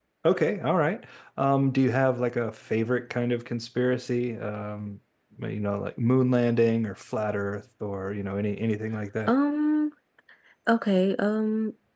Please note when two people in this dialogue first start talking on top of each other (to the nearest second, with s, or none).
none